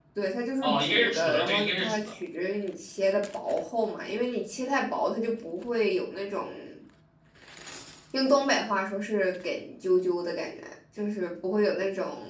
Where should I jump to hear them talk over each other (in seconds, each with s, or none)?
0.6 s